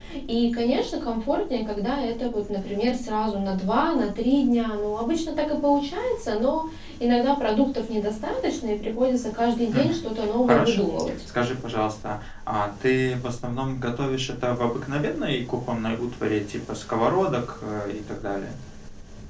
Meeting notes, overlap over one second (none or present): none